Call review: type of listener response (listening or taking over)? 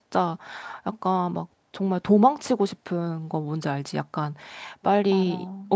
listening